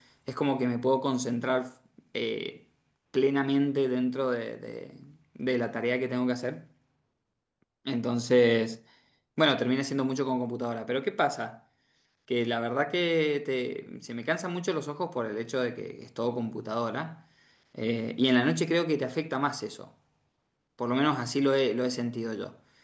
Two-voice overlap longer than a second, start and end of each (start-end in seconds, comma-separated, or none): none